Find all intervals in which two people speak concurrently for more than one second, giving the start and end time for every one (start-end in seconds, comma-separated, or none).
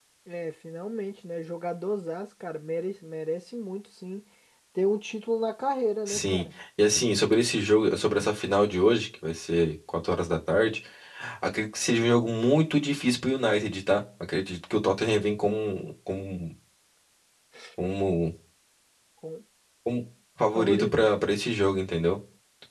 none